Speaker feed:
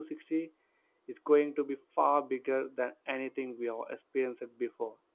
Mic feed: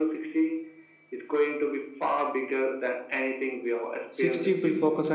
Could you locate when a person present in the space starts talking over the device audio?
4.1 s

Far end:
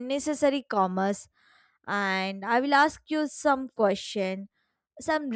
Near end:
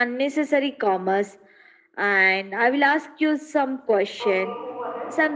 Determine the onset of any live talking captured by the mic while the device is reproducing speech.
4.2 s

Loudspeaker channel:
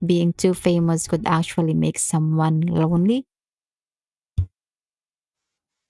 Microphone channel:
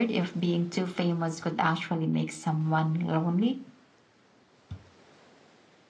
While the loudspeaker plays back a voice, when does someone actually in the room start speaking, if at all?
none

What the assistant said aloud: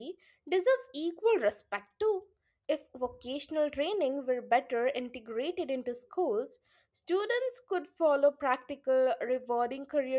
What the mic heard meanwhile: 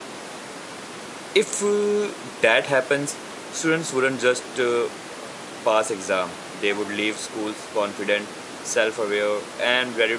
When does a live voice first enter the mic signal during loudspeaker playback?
1.3 s

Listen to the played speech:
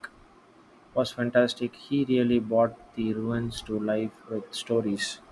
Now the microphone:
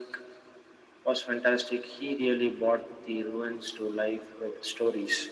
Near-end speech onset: none

